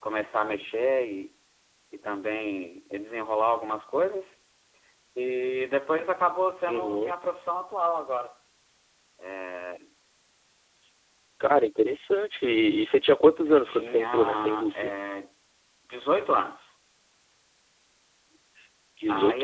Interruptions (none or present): present